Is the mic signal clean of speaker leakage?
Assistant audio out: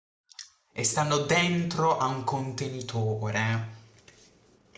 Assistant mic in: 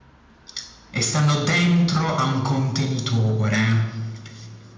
No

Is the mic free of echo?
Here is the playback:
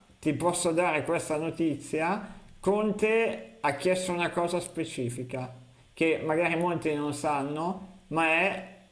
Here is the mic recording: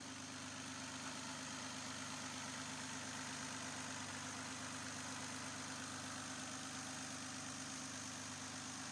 Yes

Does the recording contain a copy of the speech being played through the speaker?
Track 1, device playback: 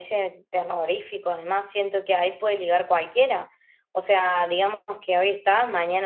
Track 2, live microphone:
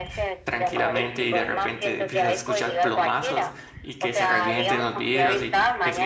Yes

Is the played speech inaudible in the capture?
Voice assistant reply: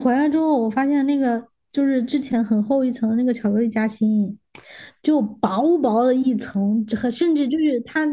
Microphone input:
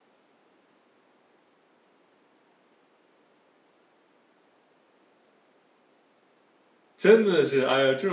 Yes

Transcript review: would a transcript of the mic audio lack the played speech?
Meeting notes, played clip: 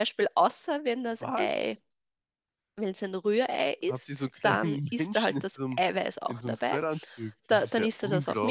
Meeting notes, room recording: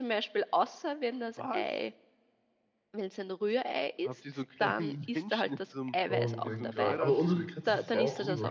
No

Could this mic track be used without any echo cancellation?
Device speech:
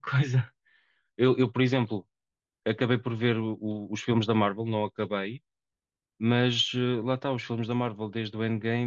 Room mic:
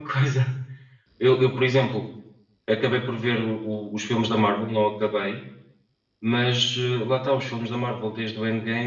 No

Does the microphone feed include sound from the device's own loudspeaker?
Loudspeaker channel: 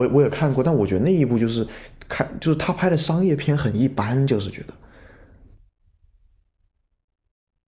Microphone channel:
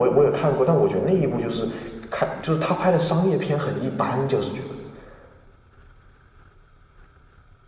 Yes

